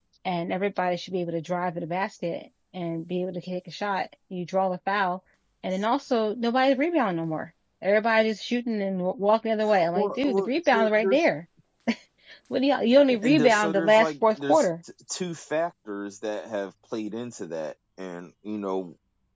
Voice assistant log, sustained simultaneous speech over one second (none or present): present